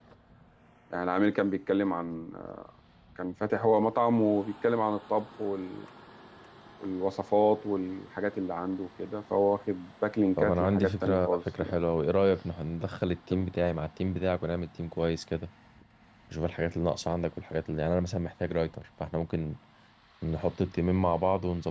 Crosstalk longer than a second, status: present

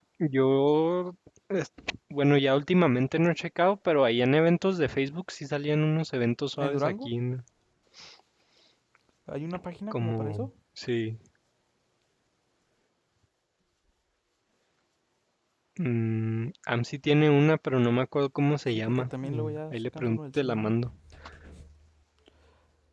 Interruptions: present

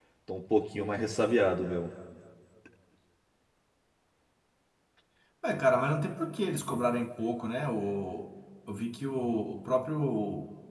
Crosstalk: none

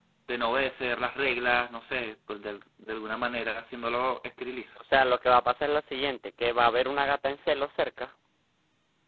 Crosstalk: none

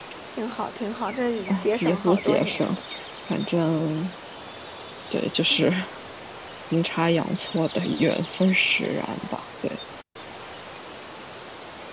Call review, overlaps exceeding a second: present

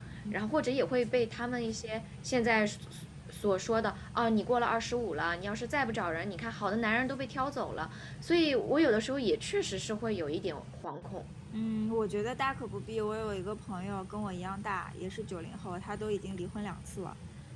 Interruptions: none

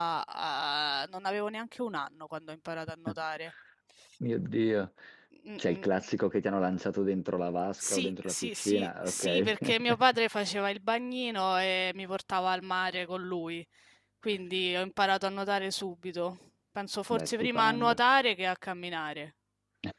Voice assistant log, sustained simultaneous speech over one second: present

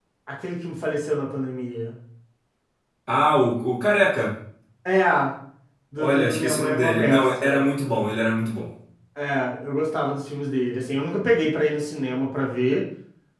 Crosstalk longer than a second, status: present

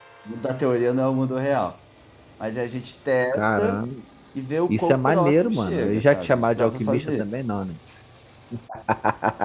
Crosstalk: present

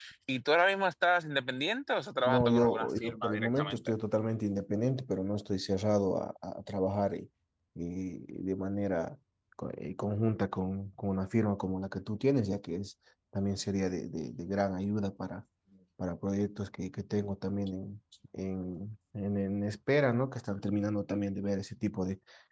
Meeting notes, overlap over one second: present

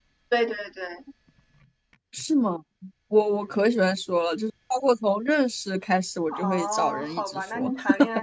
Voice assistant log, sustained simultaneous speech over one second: present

